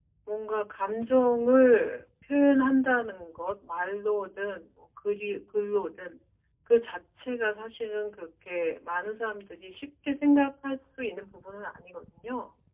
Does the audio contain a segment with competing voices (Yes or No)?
No